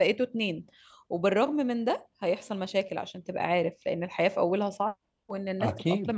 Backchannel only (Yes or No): Yes